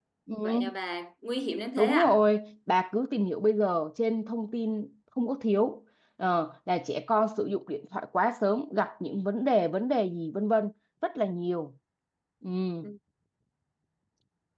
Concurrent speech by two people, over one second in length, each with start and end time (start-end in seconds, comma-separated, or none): none